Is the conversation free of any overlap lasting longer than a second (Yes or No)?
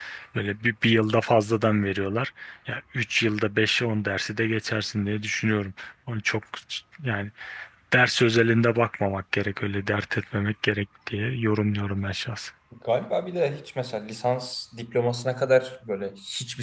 Yes